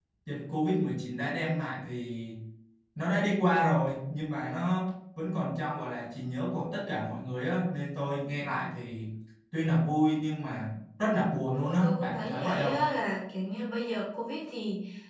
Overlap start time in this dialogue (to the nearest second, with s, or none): 12 s